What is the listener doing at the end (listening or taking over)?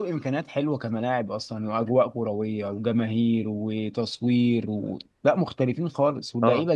taking over